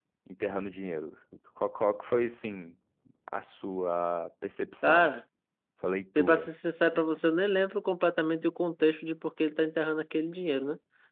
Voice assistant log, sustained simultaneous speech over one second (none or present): none